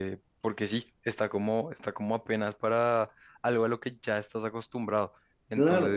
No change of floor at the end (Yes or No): No